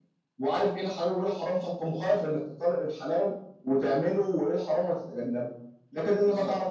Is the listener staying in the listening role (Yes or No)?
Yes